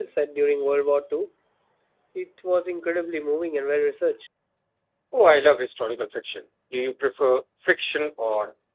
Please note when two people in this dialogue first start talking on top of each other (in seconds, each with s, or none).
none